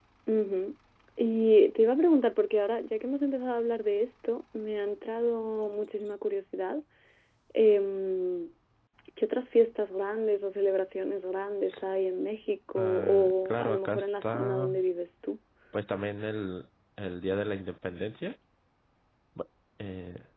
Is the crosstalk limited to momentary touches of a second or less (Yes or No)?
No